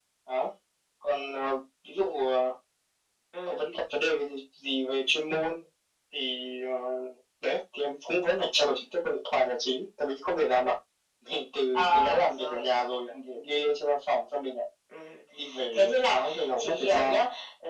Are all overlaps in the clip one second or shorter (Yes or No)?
No